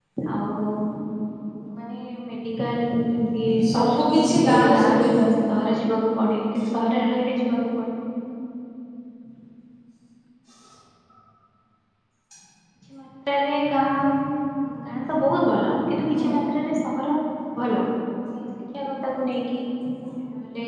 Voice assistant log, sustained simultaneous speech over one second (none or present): present